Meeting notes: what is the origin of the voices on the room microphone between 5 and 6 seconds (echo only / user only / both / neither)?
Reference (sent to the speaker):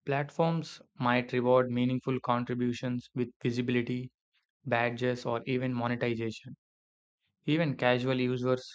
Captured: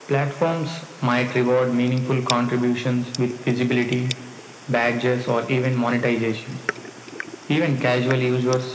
echo only